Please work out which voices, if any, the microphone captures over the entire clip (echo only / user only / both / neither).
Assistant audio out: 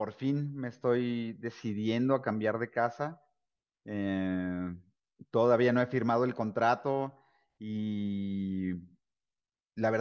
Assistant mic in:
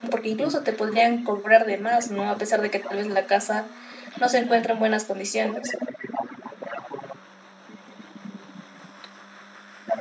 both